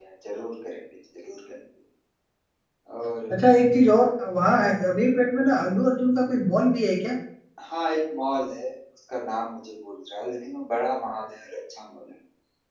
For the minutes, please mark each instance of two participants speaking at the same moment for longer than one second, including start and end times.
none

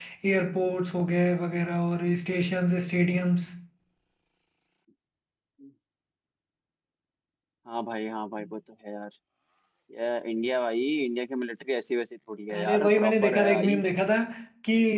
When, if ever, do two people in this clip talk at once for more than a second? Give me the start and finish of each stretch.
12.6-13.8

